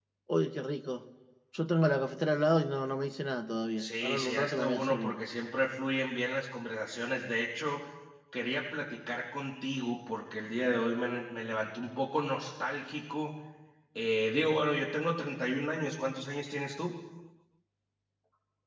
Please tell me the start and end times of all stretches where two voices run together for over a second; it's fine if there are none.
3.8-5.2

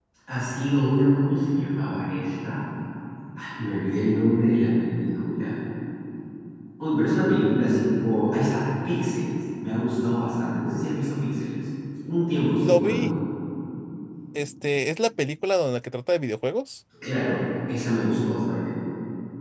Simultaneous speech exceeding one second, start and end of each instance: none

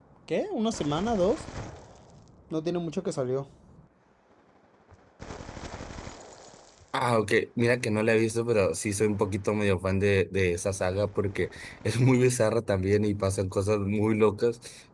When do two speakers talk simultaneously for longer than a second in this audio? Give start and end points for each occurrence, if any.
none

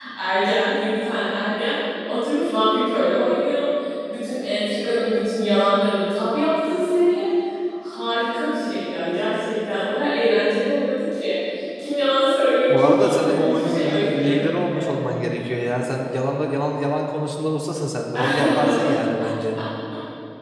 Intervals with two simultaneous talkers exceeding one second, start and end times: 12.7-15.2

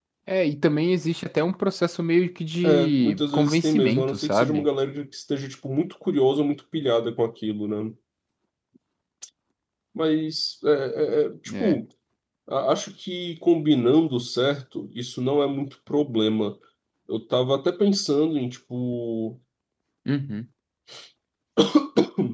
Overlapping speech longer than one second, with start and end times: 2.6-4.7

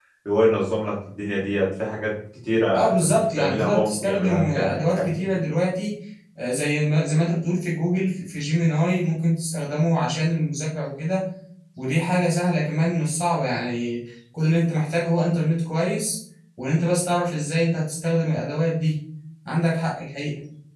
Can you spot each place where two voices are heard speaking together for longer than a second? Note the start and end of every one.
2.7-5.4

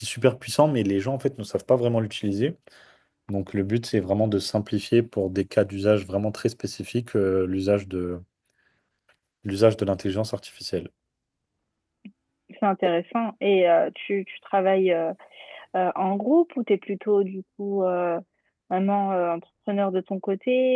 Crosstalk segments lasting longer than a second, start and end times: none

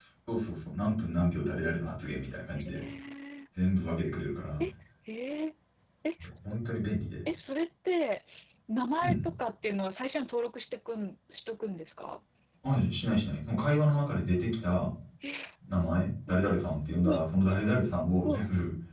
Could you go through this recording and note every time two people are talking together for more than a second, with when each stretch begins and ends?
none

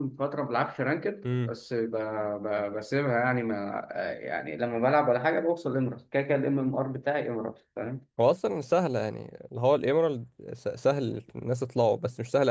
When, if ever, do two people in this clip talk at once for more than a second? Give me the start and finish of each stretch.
none

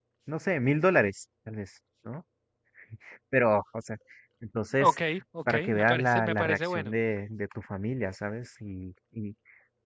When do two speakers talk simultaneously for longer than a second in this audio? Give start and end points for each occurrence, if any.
5.5-6.9

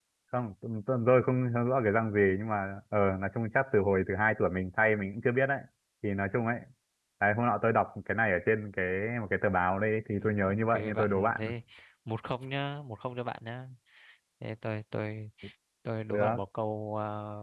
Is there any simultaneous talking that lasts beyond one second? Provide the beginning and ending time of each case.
10.2-11.4

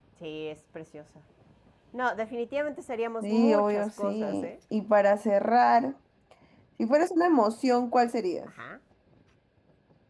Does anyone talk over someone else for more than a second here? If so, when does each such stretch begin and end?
3.2-4.5

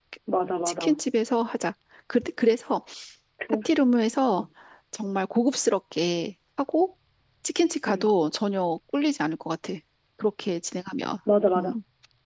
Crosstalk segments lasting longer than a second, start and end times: none

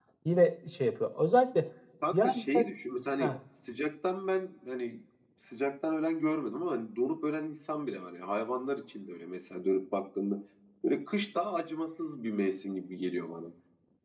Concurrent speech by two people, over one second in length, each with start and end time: none

